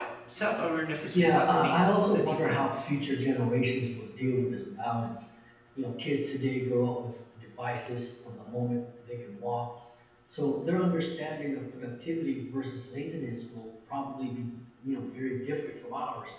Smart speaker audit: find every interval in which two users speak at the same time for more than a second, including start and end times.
1.1-2.8

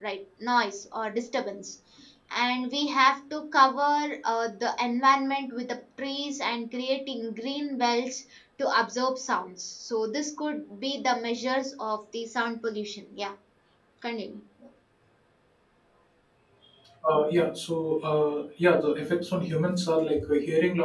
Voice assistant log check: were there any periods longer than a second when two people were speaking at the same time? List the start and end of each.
none

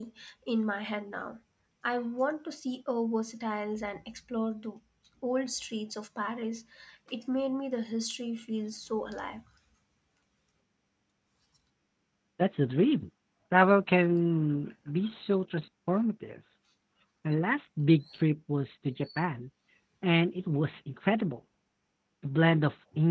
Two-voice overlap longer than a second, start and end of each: none

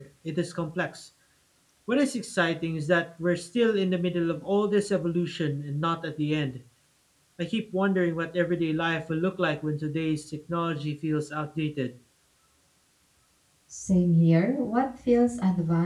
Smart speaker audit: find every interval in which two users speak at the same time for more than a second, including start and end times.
none

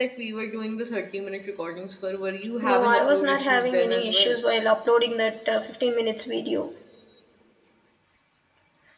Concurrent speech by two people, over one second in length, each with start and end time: 2.6-4.4

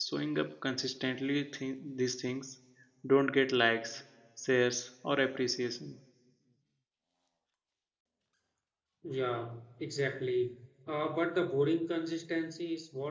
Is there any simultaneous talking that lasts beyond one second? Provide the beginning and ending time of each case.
none

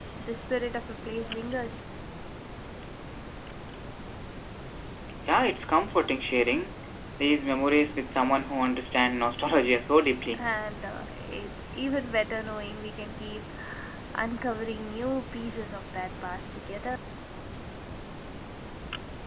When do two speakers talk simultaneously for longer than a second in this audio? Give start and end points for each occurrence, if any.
none

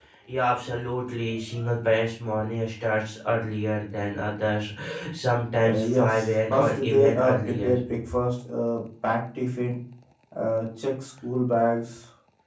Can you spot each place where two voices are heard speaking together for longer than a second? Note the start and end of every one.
5.7-7.8

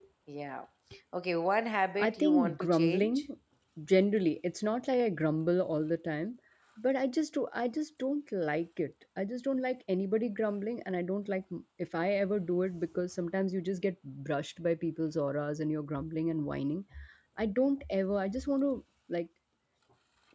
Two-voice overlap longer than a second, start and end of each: 2.0-3.2

